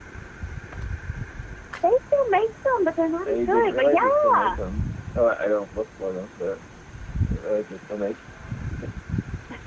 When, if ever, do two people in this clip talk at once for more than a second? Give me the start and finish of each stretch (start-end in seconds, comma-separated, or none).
3.2-4.6